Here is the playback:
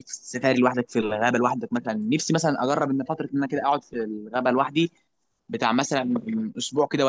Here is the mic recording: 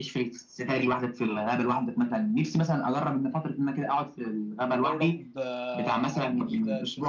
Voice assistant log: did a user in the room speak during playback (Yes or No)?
Yes